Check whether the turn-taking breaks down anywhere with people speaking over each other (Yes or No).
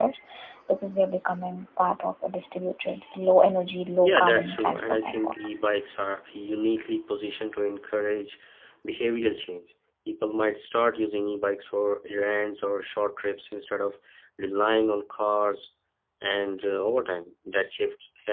Yes